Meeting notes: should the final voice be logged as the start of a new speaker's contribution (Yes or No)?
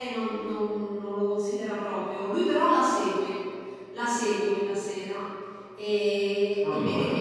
No